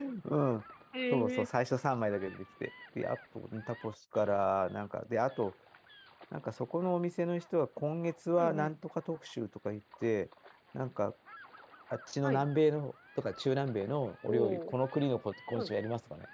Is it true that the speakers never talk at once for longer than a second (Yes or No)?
Yes